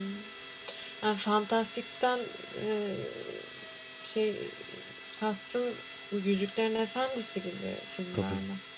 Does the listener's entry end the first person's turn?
Yes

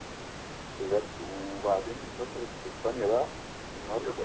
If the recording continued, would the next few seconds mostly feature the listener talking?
No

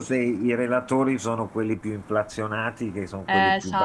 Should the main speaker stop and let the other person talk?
No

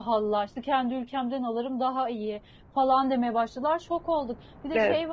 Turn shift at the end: No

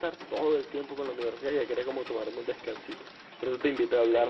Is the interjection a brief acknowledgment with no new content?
Yes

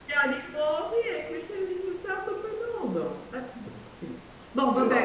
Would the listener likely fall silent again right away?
Yes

